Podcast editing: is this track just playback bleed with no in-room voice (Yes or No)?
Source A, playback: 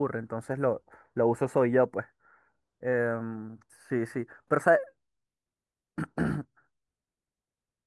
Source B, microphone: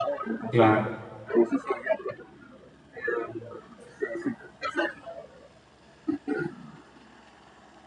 No